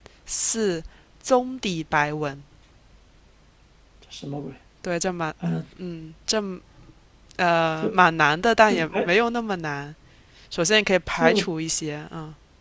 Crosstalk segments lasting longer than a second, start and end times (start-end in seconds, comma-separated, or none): none